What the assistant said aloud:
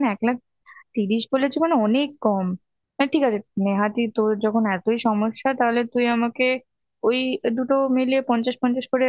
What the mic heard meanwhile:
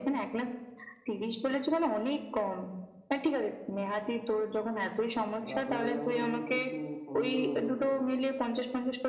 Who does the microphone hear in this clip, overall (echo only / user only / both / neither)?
both